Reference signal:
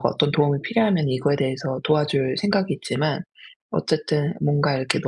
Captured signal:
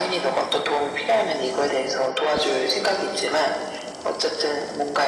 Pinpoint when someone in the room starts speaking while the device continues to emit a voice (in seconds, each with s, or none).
none